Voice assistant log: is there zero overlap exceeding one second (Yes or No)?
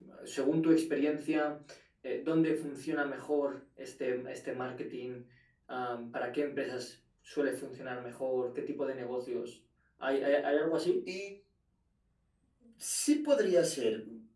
Yes